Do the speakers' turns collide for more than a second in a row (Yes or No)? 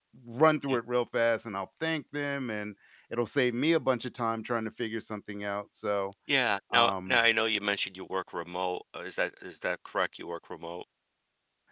No